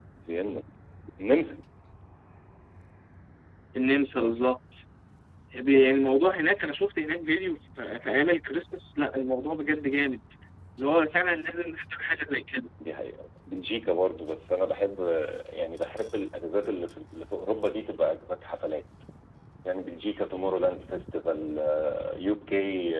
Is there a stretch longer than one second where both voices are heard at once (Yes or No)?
No